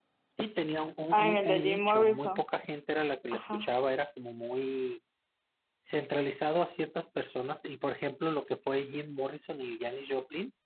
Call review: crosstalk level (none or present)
present